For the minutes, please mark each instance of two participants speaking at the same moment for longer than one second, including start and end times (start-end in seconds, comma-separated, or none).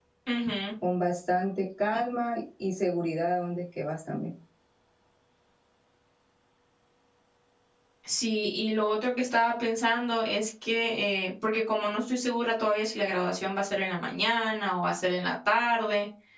none